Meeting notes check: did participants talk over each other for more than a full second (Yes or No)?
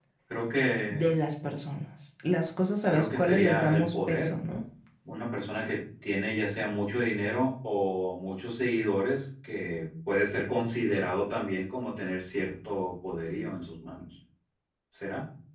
Yes